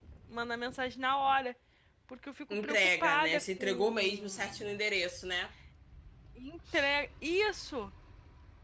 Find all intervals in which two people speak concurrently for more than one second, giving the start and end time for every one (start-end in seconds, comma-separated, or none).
2.6-4.4